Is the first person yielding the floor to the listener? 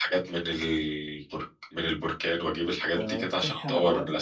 Yes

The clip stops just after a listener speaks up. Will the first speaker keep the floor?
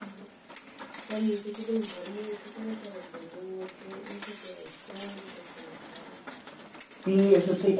No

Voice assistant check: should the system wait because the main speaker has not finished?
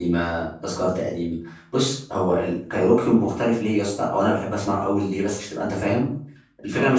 Yes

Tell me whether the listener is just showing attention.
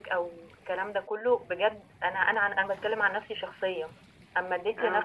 Yes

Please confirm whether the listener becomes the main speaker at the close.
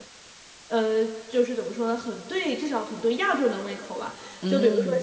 No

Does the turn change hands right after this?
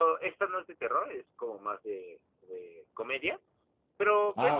No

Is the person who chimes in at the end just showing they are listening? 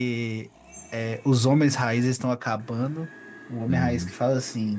Yes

